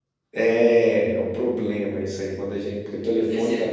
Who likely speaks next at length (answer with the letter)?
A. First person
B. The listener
A